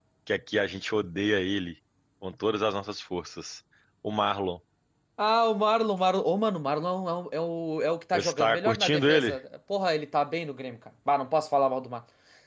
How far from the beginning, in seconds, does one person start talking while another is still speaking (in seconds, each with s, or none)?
8.1 s